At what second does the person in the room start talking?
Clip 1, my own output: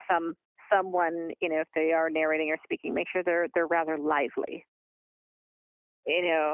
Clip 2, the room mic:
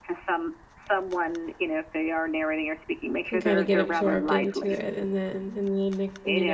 3 s

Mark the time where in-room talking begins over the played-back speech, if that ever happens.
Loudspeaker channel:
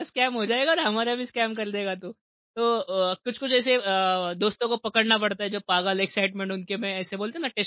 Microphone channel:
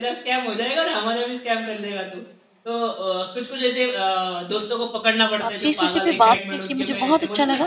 5 s

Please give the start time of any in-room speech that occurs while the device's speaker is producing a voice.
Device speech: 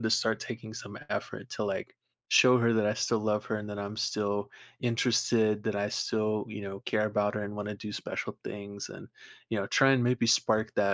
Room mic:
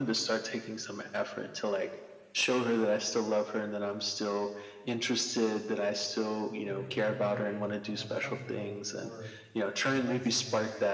7 s

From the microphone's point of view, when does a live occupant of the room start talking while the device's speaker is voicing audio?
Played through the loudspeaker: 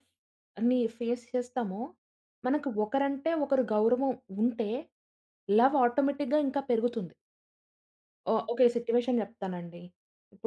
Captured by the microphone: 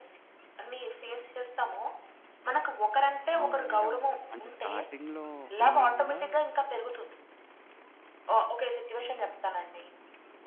3 s

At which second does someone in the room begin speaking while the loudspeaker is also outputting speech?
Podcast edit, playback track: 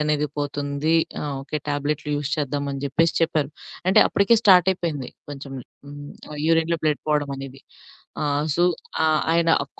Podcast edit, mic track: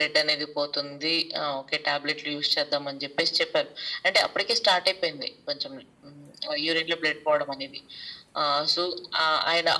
none

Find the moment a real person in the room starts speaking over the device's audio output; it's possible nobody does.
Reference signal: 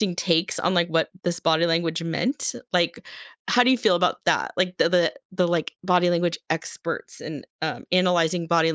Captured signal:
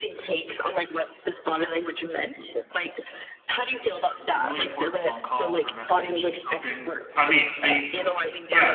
4 s

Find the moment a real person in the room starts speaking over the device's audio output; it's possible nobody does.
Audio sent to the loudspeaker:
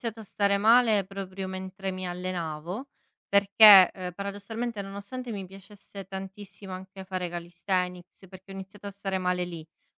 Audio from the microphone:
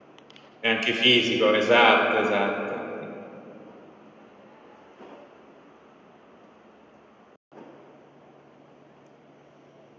1 s

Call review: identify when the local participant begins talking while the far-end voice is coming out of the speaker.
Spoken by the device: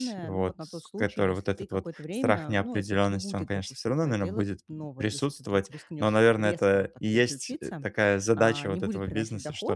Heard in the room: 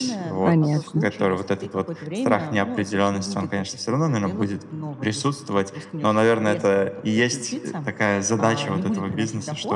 0 s

